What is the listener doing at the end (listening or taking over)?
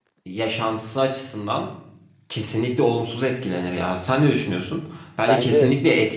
listening